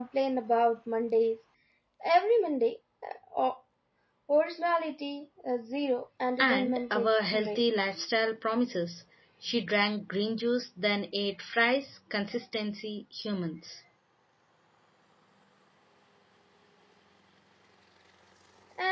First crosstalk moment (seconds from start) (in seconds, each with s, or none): 6.4 s